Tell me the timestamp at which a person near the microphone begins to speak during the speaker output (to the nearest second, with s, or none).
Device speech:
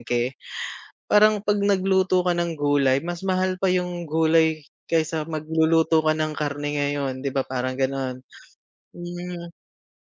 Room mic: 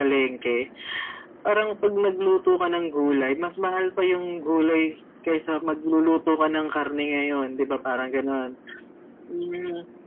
none